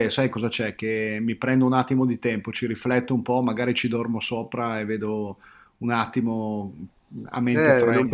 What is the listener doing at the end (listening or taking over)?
taking over